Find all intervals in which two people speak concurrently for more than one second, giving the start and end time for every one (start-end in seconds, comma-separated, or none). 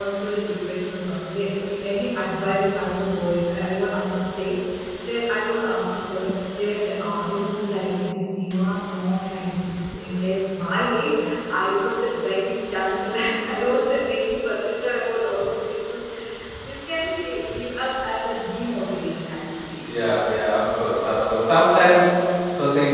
none